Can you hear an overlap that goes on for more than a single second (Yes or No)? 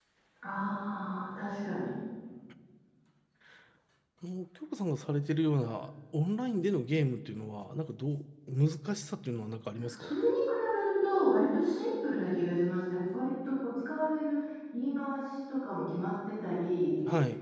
No